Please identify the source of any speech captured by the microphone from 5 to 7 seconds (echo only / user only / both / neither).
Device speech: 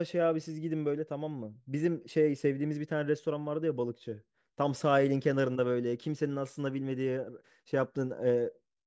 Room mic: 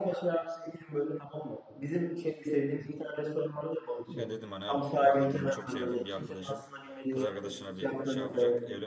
both